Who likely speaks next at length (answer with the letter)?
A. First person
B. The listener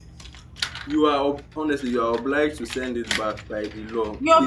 B